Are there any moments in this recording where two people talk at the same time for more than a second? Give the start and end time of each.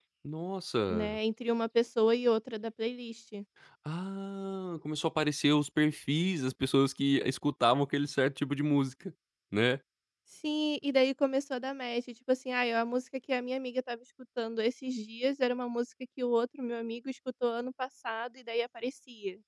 none

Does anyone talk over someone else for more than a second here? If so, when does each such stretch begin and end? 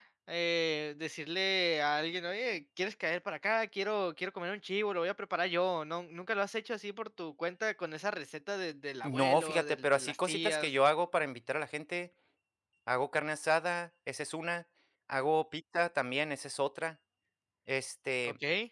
9.0-10.7

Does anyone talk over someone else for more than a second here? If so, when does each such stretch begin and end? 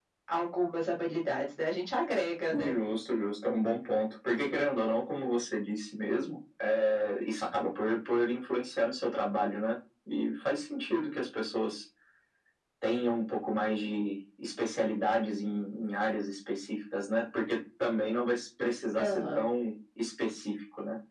none

